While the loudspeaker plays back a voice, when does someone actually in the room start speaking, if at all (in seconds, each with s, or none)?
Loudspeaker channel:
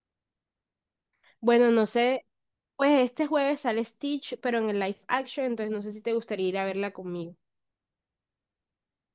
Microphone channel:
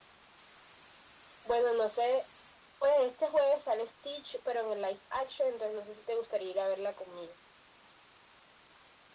none